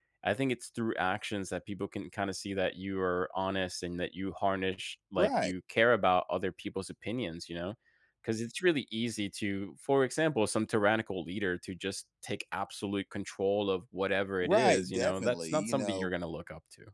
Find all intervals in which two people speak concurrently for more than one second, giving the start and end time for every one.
14.4-16.1

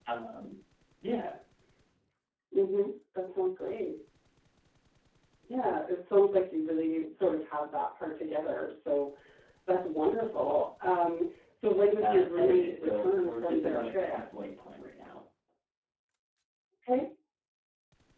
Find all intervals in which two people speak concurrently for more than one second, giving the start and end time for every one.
12.0-14.1

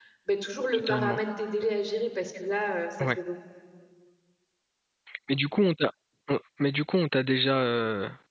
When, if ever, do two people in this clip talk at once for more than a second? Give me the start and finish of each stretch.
none

